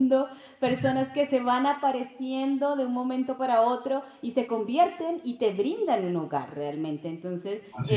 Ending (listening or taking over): listening